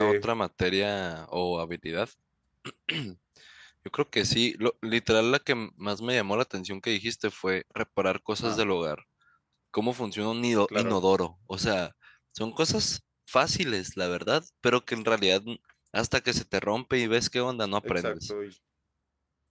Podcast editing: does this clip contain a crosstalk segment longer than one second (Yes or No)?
No